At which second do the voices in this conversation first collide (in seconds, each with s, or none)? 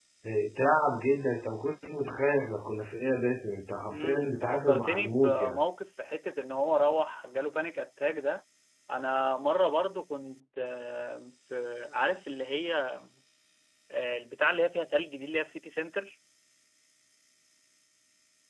3.9 s